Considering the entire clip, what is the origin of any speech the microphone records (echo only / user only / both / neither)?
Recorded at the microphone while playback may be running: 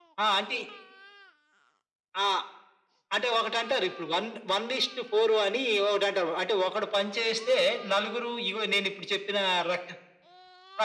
echo only